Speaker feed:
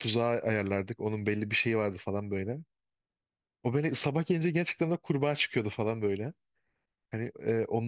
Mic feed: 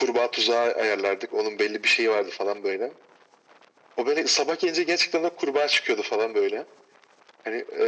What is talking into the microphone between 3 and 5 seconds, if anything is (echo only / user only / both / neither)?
echo only